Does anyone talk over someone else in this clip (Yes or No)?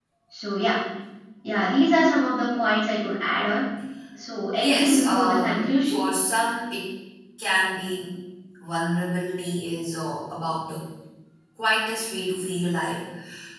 Yes